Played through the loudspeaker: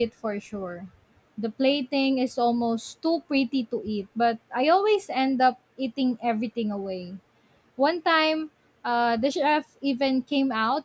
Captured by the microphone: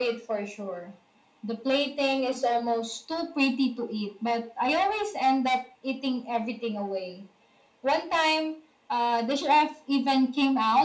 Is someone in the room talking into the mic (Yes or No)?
No